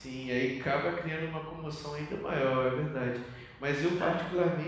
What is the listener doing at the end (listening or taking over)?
listening